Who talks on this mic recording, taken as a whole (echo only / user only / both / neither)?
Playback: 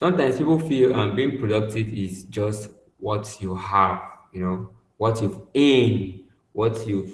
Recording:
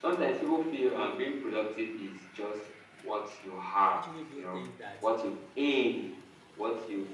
both